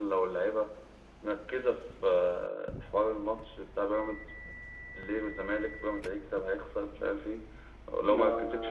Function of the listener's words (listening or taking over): taking over